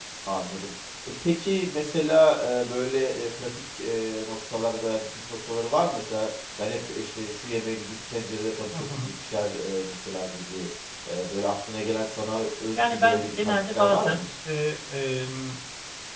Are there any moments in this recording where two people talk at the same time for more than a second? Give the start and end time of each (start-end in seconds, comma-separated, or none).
12.8-14.2